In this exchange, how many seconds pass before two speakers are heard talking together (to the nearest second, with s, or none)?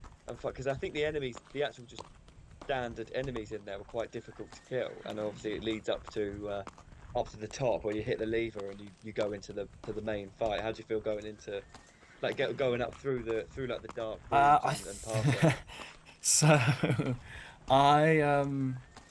14 s